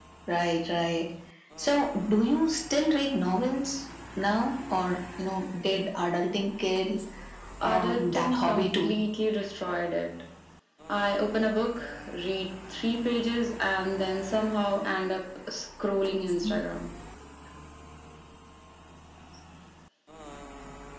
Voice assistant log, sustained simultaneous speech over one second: present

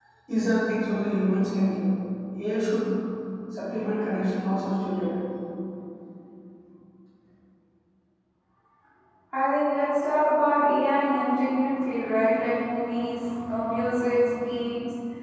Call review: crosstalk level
none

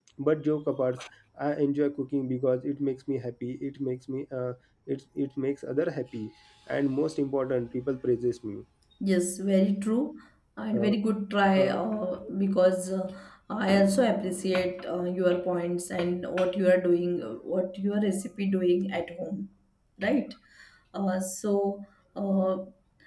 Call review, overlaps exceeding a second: none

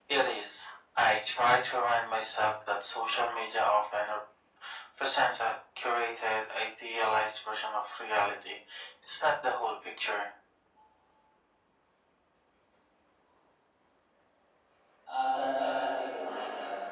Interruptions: none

